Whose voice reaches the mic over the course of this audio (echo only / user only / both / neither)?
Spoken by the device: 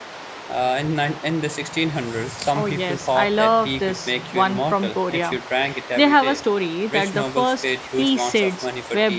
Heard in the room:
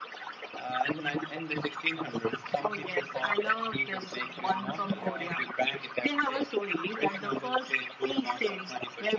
both